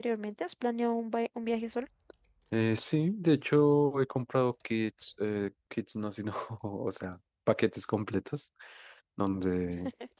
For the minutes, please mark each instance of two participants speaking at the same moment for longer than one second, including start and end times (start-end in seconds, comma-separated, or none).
none